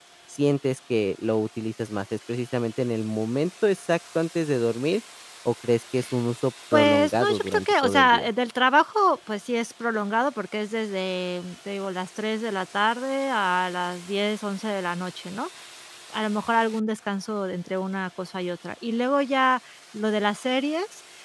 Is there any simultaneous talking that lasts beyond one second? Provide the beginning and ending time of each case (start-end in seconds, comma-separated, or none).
6.7-8.3